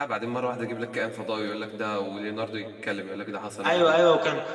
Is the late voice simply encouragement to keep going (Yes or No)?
No